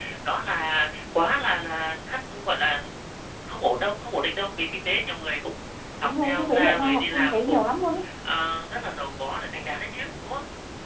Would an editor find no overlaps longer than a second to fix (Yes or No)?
No